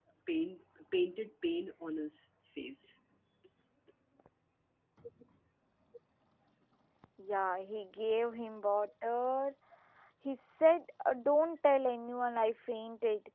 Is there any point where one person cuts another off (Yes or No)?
No